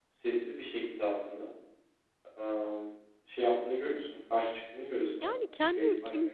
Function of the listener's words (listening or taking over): taking over